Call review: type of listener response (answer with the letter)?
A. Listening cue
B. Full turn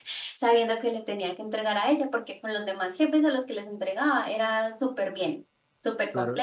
B